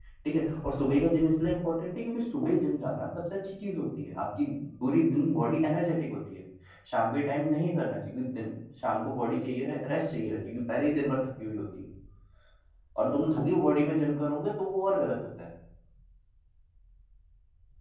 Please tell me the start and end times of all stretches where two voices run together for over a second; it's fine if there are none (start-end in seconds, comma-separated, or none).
none